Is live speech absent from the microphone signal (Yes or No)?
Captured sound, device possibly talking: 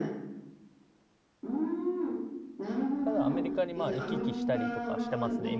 No